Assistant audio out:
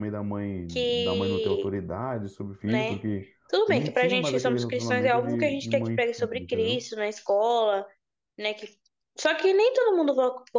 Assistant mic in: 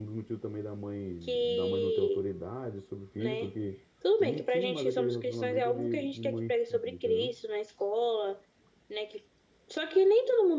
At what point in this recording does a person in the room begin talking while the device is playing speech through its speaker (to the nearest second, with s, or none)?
none